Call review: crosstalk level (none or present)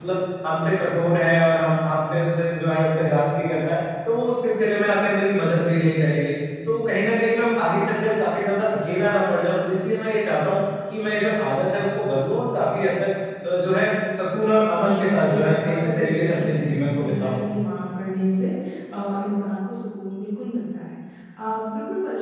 present